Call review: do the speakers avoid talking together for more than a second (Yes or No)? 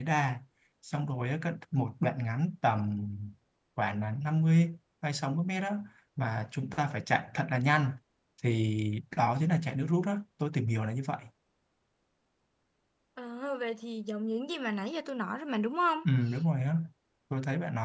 Yes